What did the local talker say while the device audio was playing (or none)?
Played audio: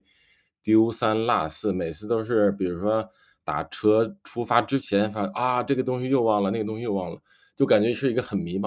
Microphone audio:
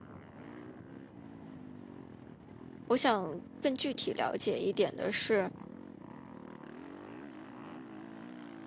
我想更具体了解一点的是，